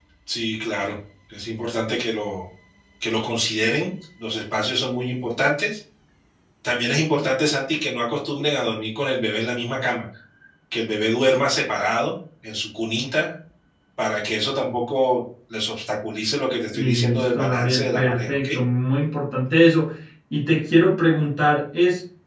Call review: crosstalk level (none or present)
present